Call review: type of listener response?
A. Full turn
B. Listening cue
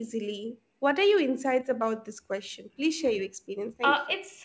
A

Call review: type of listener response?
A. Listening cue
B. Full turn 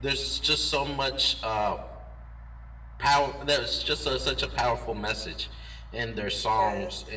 A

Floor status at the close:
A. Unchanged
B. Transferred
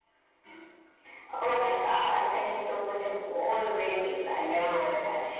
B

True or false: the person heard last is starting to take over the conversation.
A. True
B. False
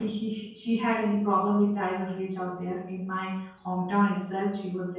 B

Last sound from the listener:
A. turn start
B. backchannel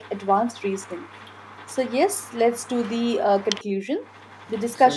B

